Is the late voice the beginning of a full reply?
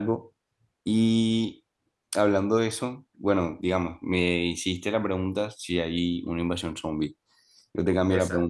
No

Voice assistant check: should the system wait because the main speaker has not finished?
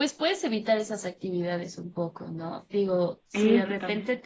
Yes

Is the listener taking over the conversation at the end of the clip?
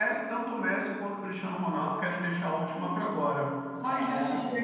No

